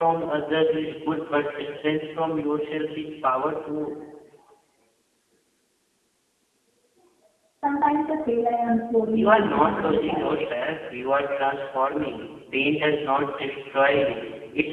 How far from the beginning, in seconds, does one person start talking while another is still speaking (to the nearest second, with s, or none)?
9 s